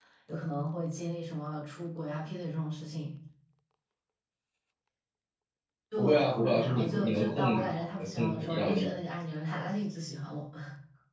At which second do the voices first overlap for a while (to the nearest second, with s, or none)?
6 s